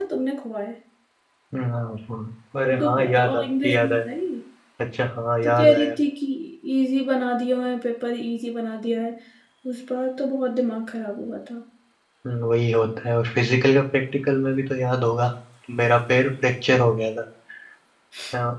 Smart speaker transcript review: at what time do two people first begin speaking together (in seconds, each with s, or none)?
2.6 s